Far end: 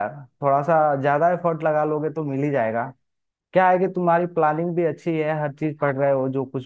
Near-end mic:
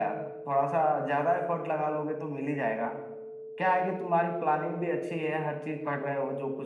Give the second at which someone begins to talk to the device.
none

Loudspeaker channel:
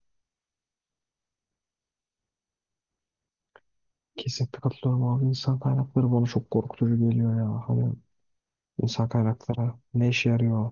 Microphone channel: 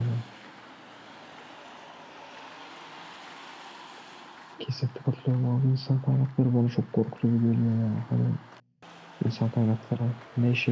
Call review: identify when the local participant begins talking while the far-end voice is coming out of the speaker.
none

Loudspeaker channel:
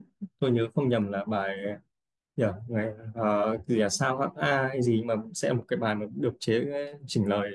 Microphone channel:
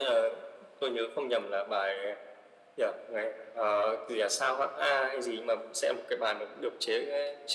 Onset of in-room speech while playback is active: none

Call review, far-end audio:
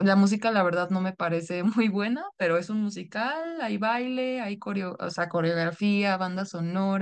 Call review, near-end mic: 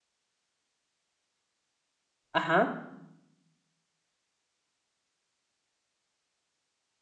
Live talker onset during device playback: 2.3 s

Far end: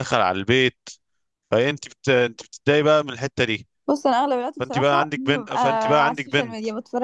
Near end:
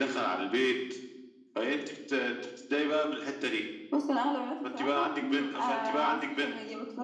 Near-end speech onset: none

